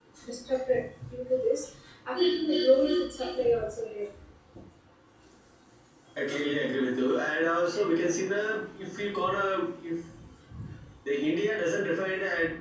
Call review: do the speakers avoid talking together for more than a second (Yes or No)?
Yes